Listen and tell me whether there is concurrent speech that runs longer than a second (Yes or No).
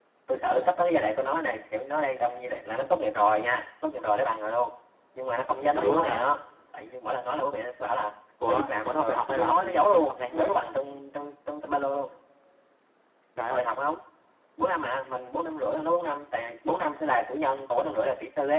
Yes